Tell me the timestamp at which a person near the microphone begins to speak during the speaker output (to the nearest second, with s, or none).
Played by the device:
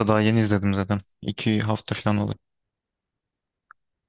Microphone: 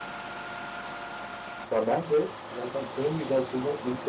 2 s